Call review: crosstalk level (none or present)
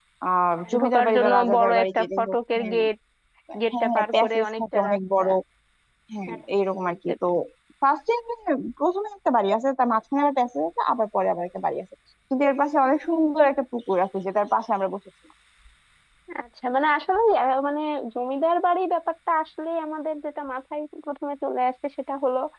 present